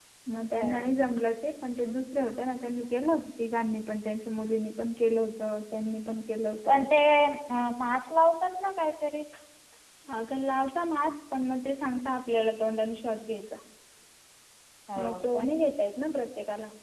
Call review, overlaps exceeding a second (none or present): none